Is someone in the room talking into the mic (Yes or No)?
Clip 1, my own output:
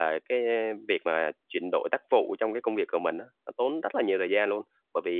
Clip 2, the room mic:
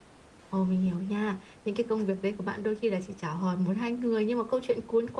Yes